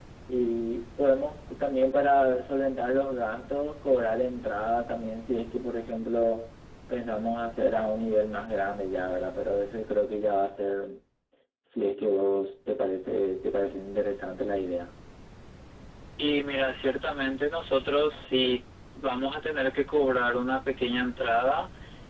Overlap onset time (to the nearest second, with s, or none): none